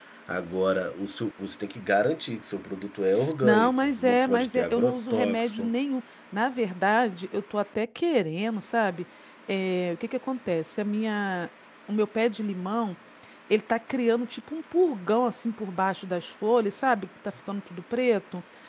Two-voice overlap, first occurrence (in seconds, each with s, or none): 3.4 s